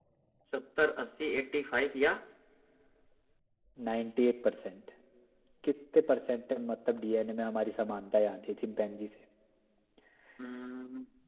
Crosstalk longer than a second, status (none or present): none